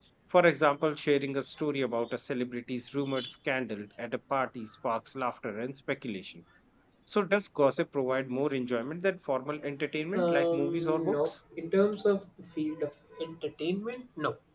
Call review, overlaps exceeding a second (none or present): present